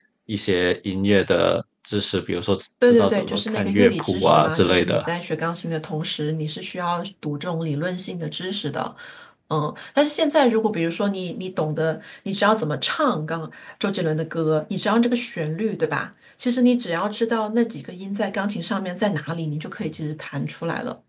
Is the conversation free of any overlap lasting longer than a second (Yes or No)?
No